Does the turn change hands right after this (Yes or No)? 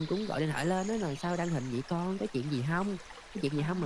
No